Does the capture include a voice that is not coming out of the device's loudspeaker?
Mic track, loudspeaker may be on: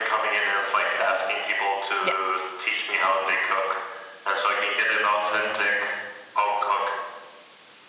Yes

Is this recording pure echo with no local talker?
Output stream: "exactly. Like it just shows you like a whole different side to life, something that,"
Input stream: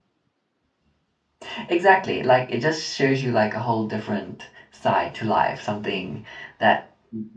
Yes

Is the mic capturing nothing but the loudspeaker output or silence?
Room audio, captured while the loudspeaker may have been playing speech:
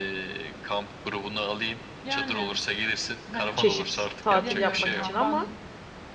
No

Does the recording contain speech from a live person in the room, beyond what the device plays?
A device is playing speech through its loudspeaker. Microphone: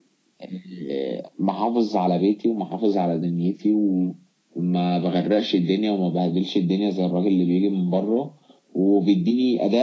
No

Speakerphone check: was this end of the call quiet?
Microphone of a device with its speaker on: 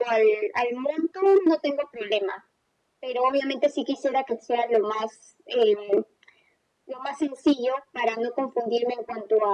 Yes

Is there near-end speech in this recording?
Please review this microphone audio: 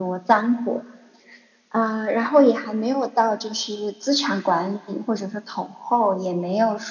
No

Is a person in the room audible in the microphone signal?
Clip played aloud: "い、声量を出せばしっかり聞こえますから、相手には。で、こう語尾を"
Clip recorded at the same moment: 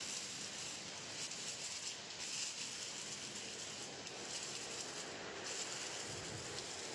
No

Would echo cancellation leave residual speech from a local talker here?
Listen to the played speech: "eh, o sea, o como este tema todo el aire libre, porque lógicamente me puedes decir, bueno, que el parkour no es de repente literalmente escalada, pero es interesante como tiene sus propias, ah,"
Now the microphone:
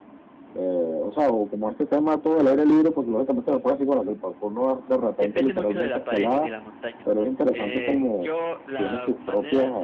Yes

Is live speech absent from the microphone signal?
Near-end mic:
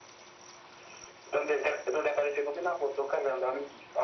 Yes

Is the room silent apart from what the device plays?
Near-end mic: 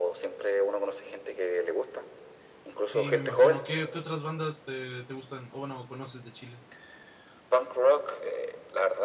No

